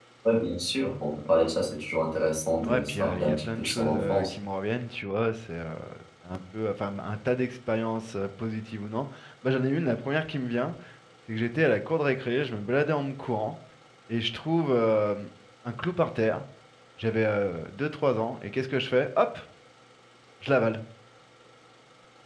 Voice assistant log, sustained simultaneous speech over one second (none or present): present